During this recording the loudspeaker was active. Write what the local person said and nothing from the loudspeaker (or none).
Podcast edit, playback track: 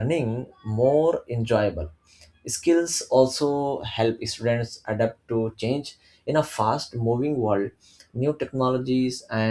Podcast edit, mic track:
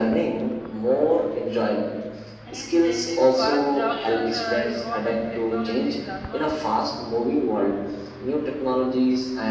is changing fast. Jobs are uh, evolving. Technology is advancing.